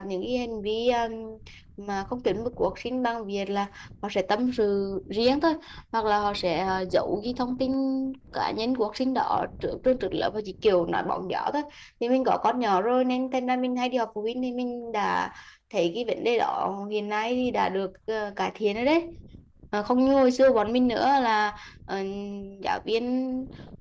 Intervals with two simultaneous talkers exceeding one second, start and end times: none

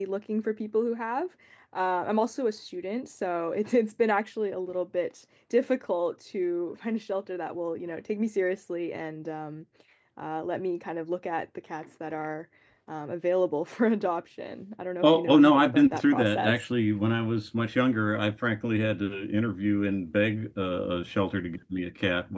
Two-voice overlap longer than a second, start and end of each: 15.0-16.5

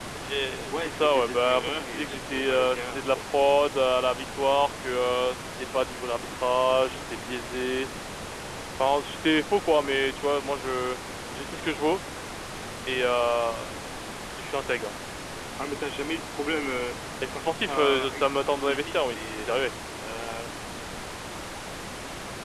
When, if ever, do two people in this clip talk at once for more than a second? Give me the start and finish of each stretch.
0.7-3.2, 17.4-19.5

